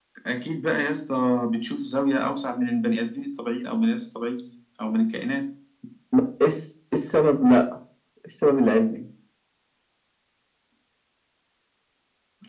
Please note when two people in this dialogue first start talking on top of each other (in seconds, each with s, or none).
none